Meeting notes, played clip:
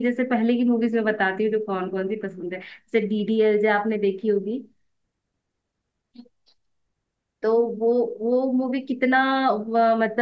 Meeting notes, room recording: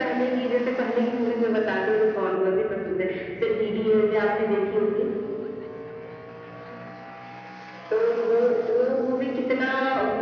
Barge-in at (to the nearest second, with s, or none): none